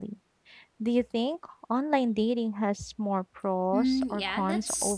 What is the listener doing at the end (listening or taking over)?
taking over